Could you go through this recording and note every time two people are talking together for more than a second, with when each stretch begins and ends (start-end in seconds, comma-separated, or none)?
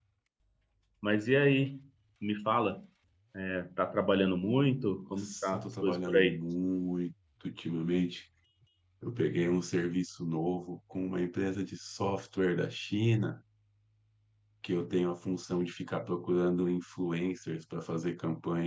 5.1-6.4